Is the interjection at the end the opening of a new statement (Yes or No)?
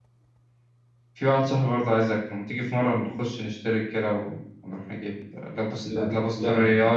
No